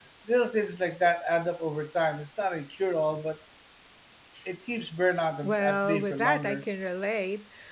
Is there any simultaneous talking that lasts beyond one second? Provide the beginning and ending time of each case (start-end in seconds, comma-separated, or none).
5.4-6.6